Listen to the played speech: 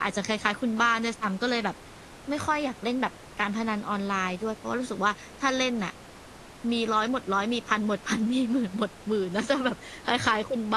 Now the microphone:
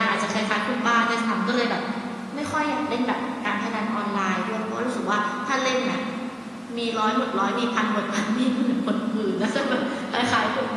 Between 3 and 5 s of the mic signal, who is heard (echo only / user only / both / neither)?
echo only